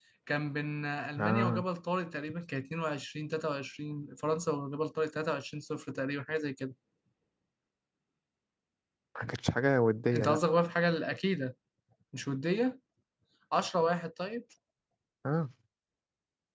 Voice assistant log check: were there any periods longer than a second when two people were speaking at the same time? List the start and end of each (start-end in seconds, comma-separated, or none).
none